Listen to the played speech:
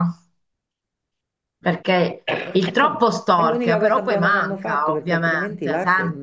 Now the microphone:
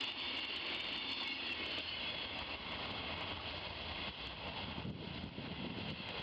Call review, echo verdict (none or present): none